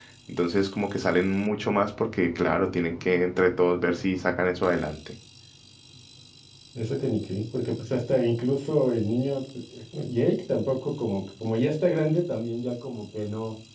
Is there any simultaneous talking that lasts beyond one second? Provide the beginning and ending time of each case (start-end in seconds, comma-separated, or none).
none